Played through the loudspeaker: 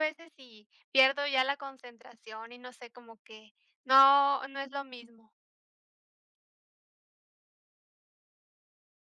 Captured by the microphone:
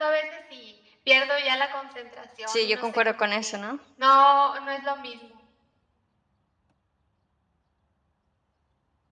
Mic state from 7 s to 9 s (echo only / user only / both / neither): neither